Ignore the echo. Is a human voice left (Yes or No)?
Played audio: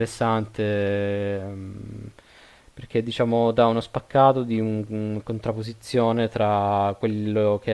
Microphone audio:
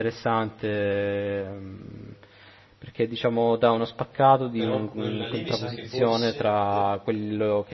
Yes